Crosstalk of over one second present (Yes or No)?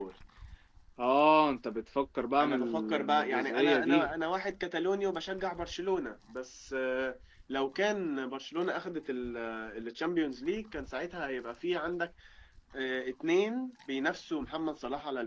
Yes